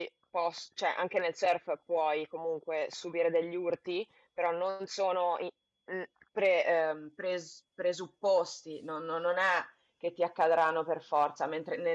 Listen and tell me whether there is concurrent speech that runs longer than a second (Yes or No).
No